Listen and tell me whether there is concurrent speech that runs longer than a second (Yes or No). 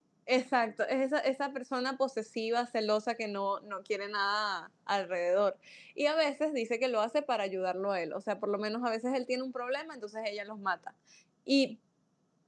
No